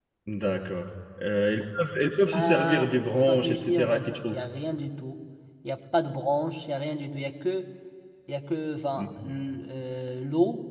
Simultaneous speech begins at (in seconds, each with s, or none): 2.3 s